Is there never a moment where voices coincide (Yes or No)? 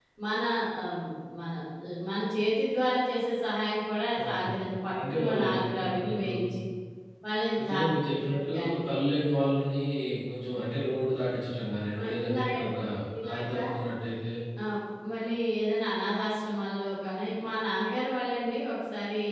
No